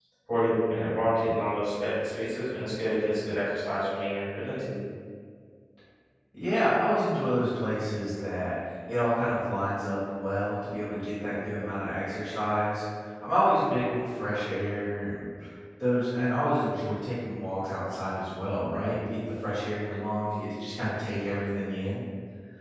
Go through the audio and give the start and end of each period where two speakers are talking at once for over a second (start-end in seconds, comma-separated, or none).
none